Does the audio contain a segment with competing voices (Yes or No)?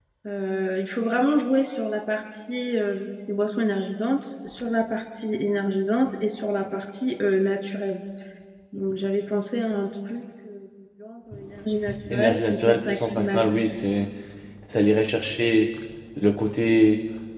Yes